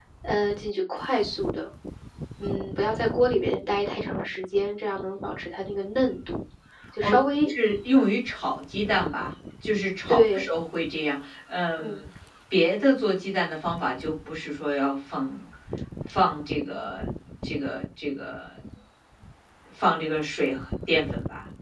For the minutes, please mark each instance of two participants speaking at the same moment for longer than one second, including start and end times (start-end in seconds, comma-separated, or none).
none